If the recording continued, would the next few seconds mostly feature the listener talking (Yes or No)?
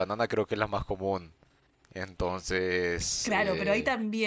Yes